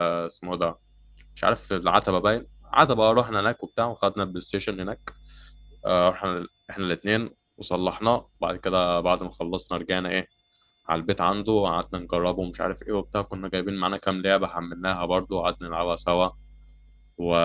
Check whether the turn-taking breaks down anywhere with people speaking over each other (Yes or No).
No